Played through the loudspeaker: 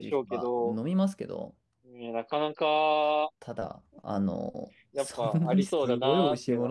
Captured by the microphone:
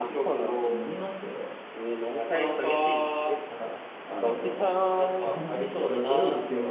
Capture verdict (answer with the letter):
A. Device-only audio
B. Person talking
B